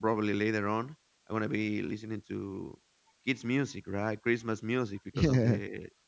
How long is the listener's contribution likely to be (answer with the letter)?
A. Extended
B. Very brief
B